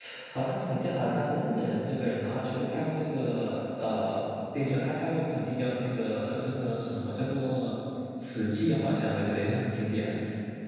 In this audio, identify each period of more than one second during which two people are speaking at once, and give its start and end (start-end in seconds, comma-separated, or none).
none